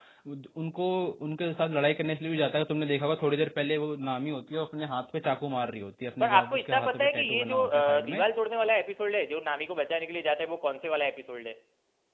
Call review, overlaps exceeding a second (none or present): present